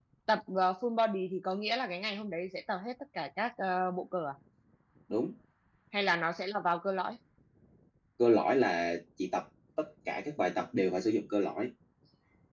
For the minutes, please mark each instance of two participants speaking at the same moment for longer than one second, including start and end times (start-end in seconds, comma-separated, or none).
none